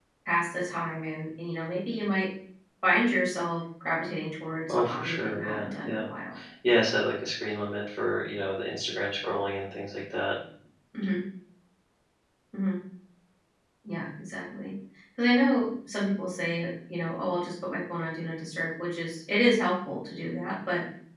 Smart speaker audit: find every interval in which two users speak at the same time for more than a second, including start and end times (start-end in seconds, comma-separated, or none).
4.7-6.0